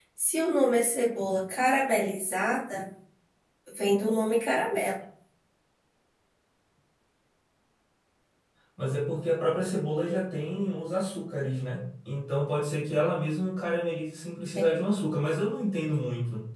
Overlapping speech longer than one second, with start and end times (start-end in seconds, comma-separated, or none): none